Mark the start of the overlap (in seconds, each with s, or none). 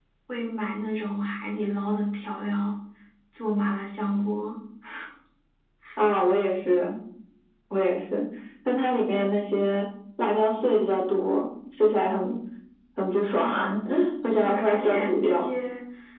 14.2 s